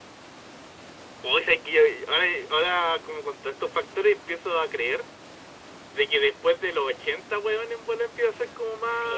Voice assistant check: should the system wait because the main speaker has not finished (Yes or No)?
No